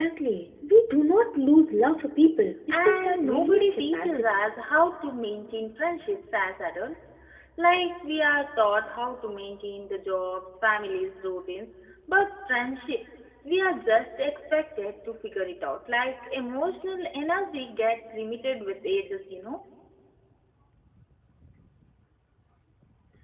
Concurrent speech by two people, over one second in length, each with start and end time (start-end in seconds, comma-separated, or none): 2.7-4.4